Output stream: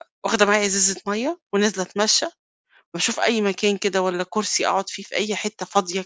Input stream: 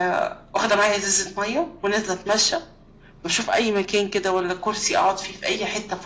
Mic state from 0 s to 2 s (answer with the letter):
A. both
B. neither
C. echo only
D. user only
C